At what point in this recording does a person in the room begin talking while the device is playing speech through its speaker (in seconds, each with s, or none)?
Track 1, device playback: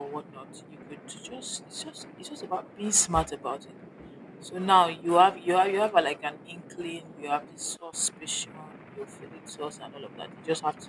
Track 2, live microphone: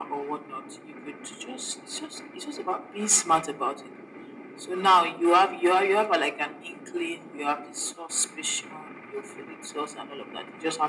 none